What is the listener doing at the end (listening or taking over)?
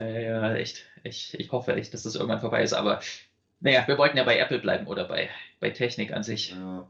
listening